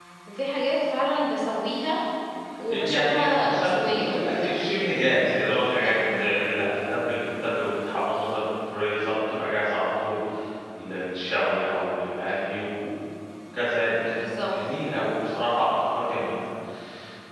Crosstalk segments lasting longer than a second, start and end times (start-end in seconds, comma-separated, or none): 2.7-4.6